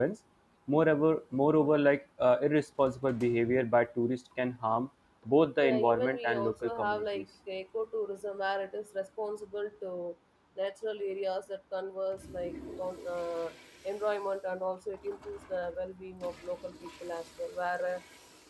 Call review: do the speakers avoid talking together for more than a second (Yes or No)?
No